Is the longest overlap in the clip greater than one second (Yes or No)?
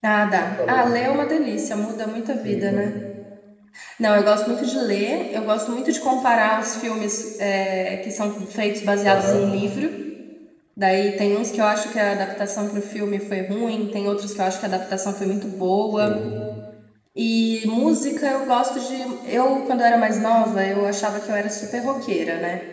No